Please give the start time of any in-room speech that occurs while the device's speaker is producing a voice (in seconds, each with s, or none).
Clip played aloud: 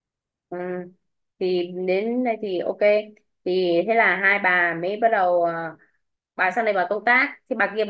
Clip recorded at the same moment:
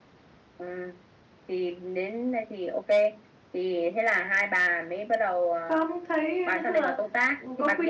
5.6 s